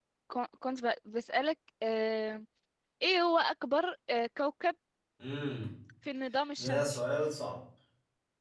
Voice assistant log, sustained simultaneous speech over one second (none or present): none